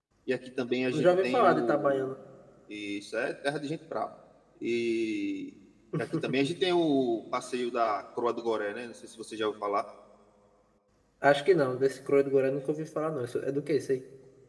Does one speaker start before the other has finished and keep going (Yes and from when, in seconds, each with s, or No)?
Yes, from 0.9 s